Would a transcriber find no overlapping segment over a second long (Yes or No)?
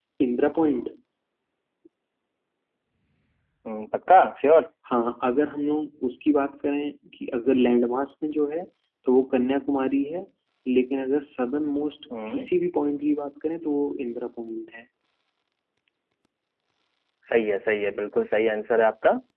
Yes